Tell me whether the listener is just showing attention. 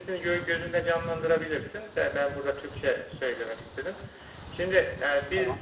Yes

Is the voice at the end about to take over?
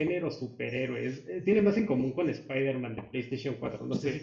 Yes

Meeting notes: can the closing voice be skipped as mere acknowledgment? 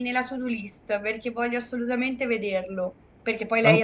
Yes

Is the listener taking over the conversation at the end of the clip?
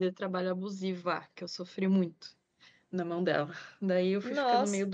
No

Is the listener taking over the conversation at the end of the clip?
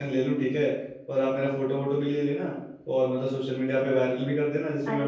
Yes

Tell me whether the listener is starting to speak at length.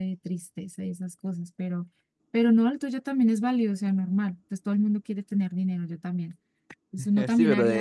Yes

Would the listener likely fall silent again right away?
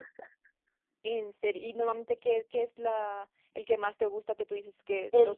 No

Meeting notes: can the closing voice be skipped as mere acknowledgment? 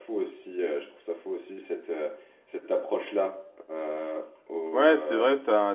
No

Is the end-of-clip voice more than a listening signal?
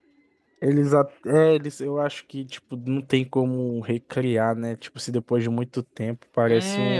Yes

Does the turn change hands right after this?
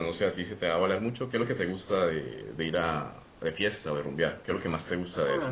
Yes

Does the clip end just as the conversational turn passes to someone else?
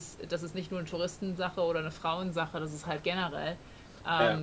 No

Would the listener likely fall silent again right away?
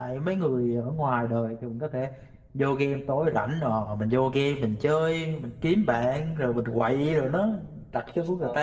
No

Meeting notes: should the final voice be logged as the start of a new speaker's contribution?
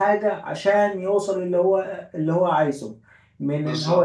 No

